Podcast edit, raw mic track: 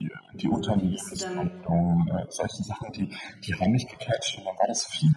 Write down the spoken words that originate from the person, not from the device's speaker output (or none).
Mhm, und wie bist du dann